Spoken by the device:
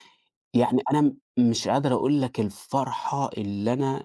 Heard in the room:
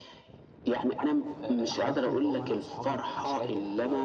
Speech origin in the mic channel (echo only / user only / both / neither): both